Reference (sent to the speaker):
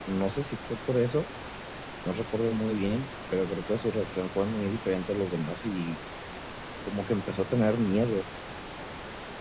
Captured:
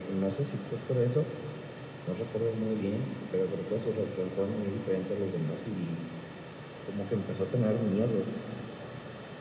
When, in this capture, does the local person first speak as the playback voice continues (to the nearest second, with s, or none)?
none